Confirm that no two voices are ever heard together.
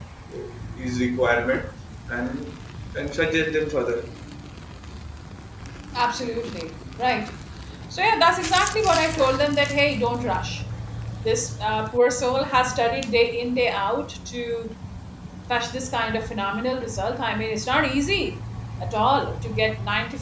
Yes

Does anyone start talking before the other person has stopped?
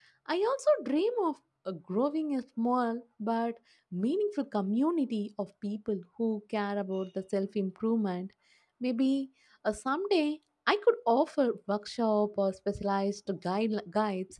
No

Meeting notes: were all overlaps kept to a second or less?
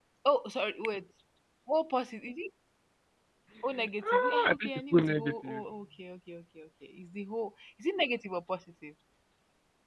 No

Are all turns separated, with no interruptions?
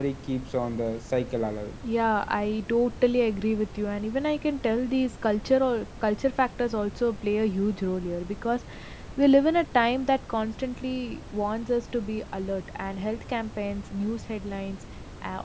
Yes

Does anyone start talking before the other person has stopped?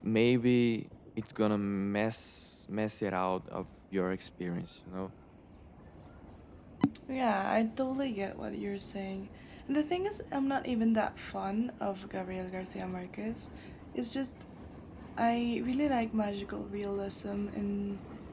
No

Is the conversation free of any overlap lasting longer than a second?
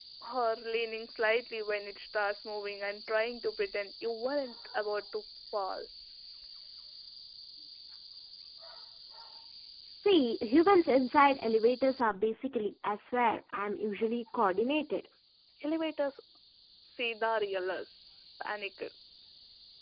Yes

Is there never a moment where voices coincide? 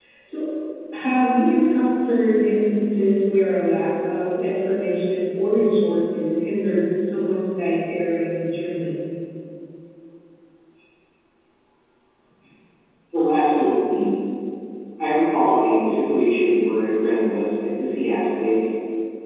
Yes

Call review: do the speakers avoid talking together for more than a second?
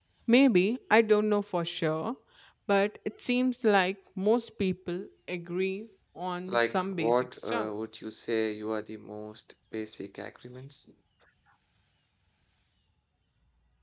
No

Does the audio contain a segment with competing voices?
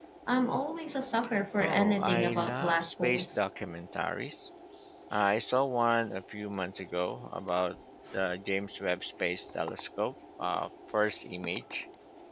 Yes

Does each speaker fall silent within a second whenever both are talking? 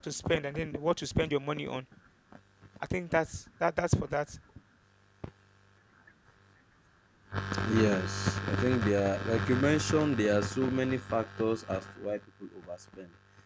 Yes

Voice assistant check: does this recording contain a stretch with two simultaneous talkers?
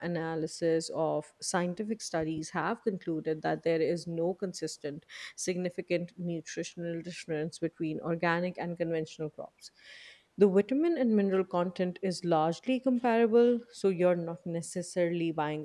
No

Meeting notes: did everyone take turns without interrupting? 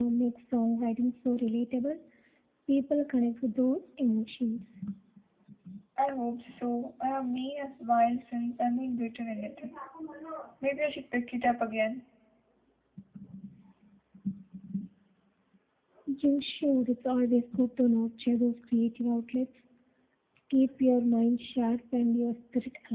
Yes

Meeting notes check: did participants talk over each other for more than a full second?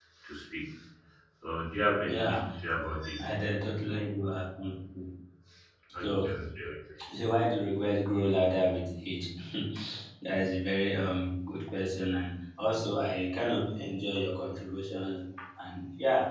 No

